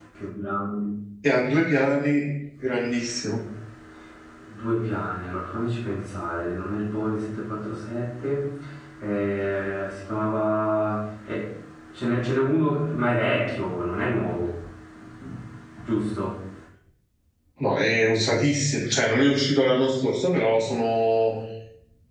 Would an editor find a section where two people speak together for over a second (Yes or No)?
No